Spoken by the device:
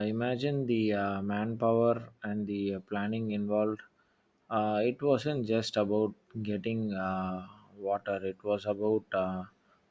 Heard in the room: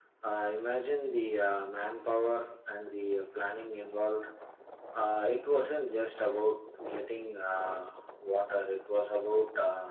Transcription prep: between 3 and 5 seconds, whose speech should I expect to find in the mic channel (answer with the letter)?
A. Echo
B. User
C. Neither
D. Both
A